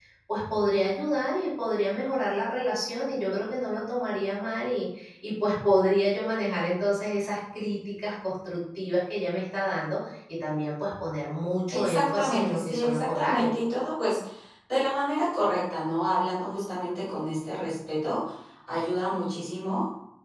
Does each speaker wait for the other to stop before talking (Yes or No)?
No